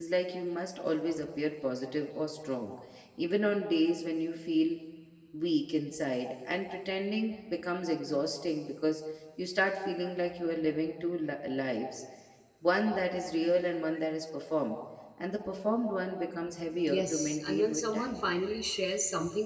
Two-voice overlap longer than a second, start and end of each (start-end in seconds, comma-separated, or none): 16.9-18.2